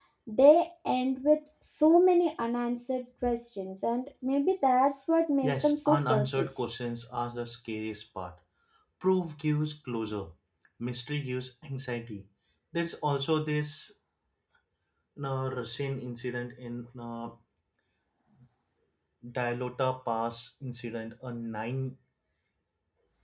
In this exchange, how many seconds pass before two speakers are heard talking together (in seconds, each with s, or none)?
5.4 s